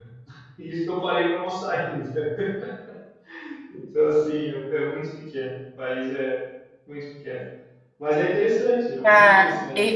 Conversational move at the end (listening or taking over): taking over